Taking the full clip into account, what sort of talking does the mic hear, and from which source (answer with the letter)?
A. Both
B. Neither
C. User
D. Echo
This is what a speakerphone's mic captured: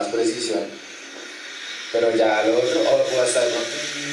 D